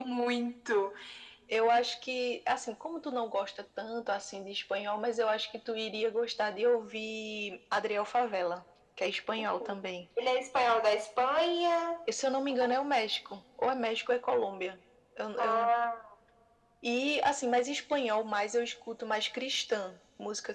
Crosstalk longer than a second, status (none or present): none